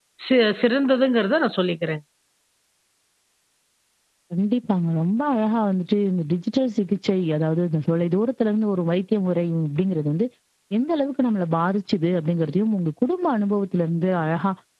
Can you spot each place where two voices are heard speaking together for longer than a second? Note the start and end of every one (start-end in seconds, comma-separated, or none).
none